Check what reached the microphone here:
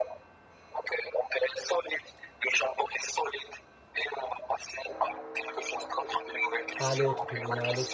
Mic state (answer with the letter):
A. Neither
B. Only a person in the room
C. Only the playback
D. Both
D